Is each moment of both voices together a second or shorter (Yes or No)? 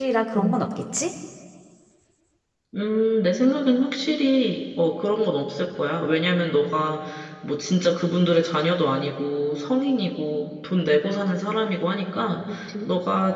Yes